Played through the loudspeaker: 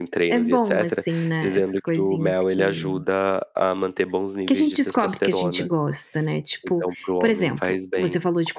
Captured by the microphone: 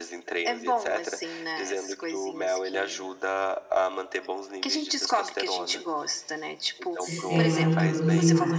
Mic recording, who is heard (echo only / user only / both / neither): both